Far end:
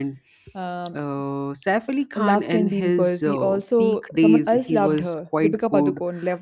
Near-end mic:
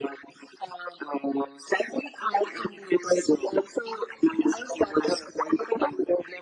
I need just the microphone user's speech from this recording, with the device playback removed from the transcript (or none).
none